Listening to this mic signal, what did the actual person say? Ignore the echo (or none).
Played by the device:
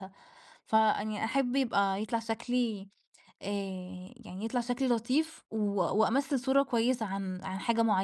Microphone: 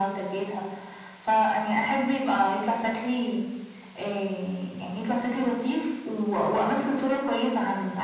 none